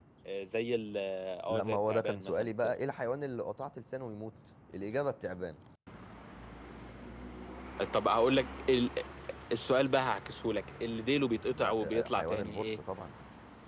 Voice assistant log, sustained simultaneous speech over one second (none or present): present